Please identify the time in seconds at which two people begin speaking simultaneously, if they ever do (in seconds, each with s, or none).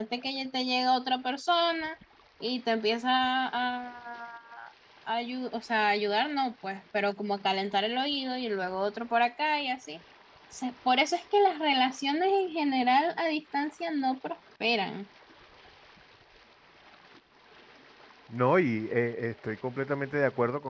none